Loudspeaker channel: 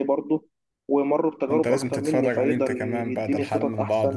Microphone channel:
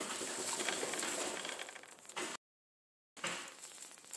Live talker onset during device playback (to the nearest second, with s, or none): none